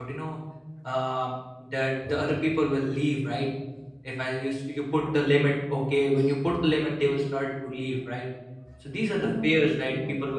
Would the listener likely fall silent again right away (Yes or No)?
Yes